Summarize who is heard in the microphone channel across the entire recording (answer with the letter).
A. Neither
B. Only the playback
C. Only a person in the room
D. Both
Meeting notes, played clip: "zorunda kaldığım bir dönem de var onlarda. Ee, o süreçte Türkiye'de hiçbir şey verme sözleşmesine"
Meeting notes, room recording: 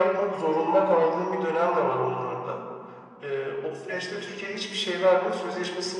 B